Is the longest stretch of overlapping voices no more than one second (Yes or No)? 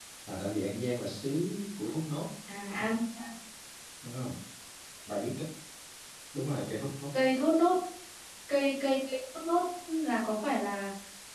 Yes